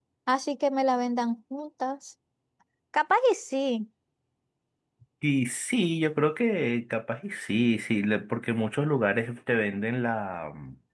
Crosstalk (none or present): none